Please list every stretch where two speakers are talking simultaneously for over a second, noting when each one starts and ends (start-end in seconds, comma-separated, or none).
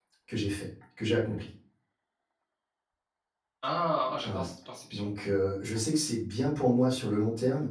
none